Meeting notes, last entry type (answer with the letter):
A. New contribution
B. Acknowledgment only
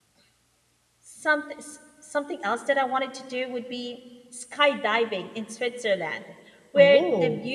B